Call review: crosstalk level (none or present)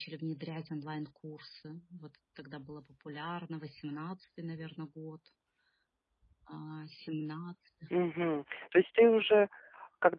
none